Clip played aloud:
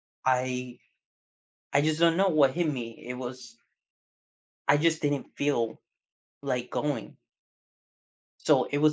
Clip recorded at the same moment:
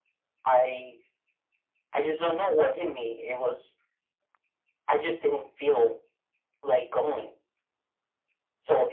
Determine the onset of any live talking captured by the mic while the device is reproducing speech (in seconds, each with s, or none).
none